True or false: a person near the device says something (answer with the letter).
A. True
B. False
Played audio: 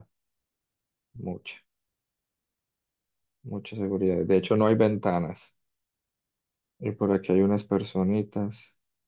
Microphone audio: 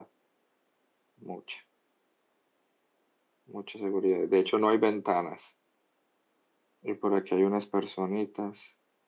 B